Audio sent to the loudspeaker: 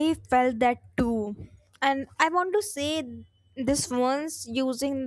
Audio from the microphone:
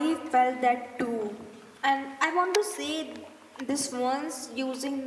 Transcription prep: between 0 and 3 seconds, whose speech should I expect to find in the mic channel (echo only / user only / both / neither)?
echo only